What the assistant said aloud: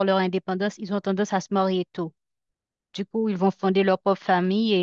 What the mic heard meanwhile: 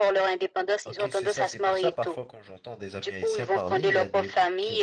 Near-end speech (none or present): present